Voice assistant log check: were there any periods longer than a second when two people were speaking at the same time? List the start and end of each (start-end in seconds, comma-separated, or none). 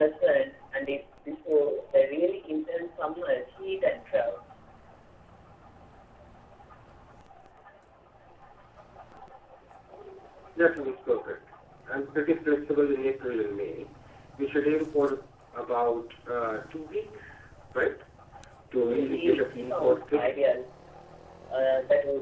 18.8-20.4